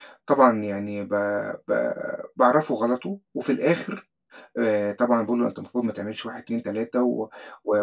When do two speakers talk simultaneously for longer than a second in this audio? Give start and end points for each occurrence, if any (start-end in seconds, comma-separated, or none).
none